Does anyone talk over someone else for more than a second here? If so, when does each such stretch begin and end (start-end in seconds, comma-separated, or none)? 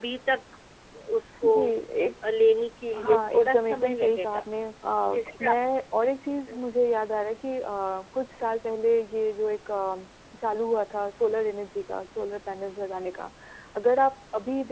3.0-4.4